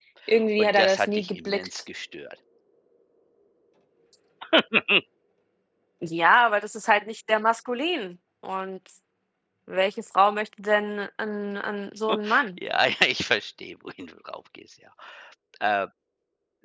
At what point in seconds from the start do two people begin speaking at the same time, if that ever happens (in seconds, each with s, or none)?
0.6 s